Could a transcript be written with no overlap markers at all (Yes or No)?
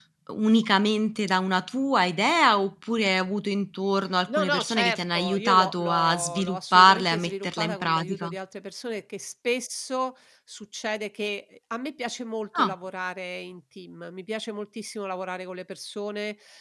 No